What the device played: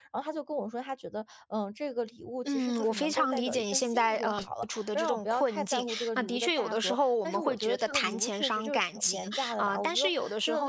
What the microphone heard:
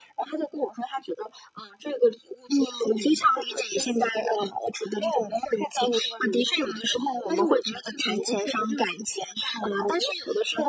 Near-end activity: none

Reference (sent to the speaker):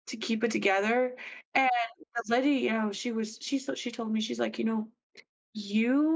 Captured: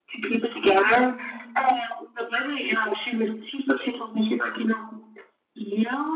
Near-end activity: present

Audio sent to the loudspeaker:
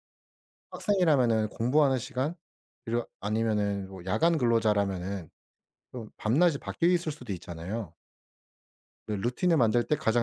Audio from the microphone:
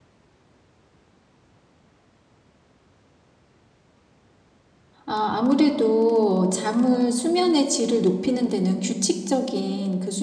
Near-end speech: present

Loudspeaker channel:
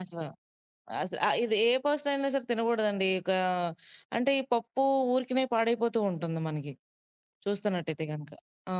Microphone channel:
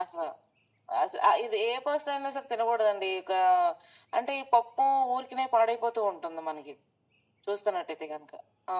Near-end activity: none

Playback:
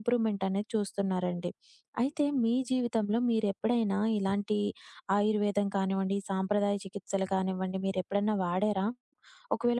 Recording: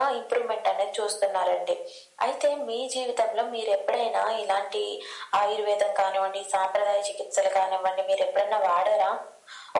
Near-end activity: none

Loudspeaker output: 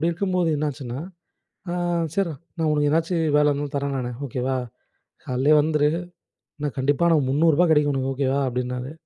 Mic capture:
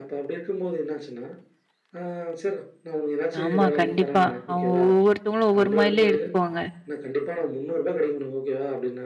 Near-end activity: present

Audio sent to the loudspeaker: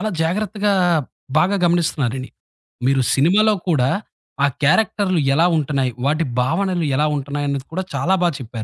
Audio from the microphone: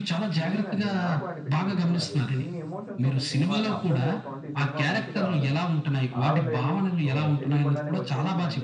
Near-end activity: present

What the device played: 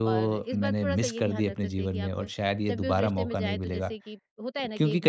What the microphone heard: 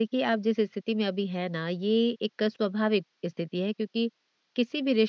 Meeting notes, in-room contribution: present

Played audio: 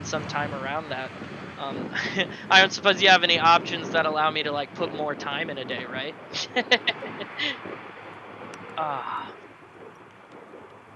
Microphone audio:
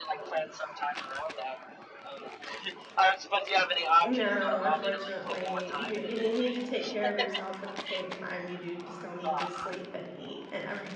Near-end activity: present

